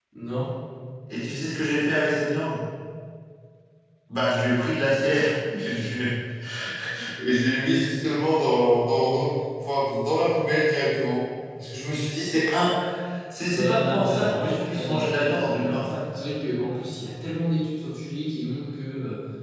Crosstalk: present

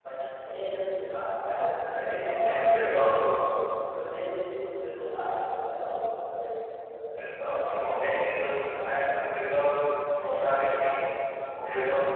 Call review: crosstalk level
present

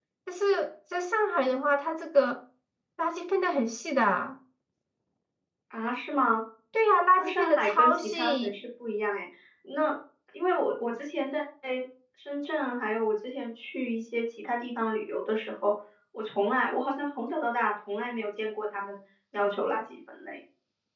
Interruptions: present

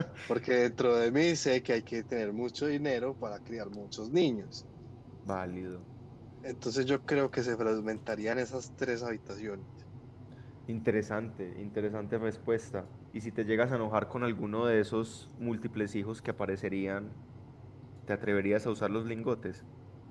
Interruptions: none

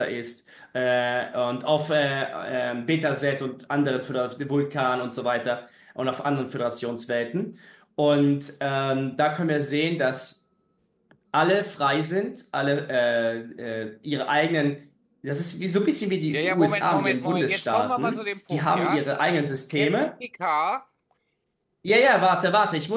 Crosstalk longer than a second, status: present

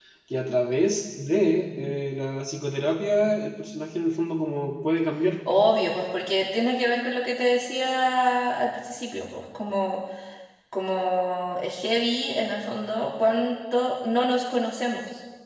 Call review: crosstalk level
none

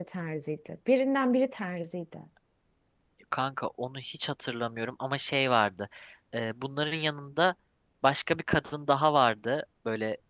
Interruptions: none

